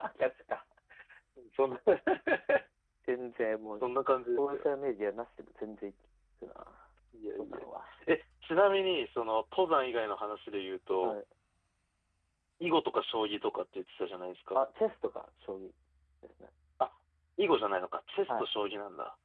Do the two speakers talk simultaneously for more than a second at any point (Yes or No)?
No